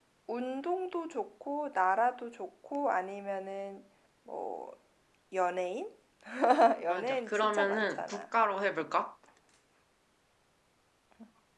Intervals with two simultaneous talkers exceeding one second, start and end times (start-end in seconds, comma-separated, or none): 6.9-8.2